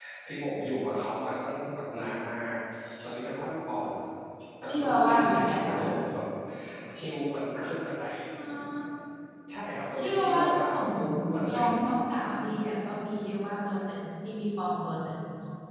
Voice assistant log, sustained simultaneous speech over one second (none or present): present